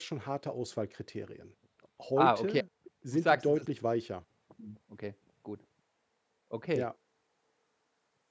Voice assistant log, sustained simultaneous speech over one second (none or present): none